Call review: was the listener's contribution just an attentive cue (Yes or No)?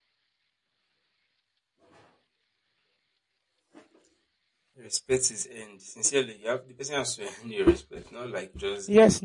No